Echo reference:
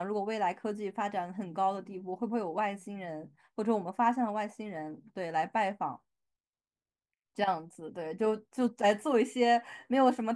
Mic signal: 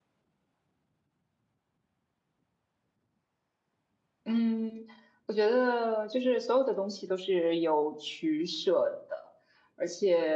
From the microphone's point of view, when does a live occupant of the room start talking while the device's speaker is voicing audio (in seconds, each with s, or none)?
4.2 s